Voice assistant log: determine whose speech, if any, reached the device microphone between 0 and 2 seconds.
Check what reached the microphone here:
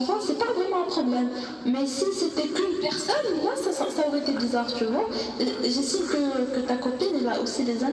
echo only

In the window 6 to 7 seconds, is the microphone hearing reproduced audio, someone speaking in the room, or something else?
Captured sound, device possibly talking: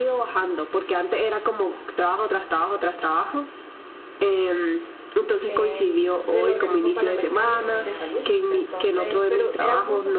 both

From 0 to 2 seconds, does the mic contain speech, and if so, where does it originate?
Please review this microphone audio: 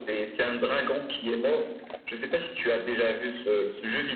echo only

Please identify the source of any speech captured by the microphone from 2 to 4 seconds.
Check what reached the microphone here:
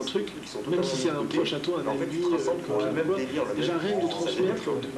both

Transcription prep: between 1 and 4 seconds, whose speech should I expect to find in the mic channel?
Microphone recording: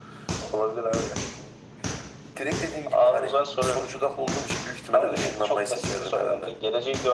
echo only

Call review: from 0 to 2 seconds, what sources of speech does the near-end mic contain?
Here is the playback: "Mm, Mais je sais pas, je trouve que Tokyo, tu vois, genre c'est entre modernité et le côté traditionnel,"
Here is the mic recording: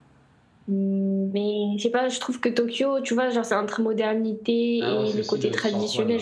echo only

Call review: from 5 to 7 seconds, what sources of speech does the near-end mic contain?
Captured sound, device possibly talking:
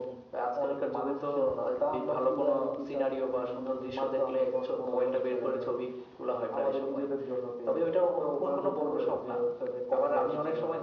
echo only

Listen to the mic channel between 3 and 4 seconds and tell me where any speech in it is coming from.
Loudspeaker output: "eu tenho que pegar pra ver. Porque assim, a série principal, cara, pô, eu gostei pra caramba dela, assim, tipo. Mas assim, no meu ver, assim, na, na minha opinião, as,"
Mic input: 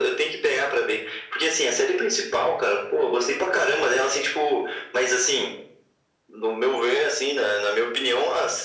echo only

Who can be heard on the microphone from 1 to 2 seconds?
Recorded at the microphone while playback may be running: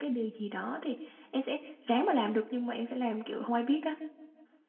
user only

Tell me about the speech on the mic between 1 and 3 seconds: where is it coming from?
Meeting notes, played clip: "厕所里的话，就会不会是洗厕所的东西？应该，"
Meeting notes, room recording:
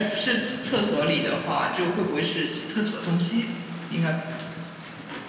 echo only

